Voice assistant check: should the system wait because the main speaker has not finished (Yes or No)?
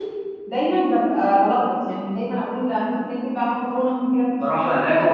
No